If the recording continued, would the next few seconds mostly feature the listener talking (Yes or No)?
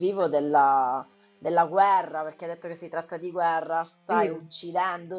No